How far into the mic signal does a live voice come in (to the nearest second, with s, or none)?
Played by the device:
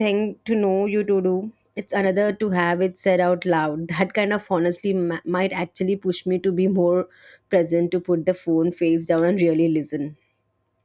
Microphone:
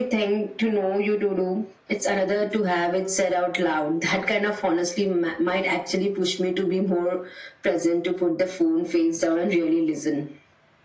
none